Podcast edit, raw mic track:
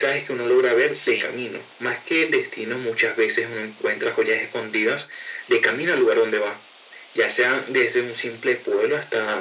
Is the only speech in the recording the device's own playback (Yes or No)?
No